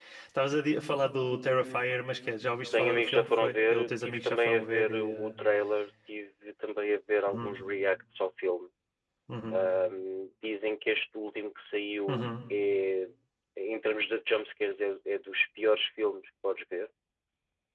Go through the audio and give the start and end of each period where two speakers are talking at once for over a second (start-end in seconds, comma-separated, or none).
2.7-5.4